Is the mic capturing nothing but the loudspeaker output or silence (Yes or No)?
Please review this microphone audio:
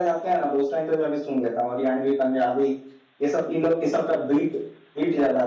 Yes